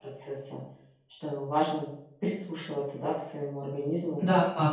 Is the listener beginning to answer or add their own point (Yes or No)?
Yes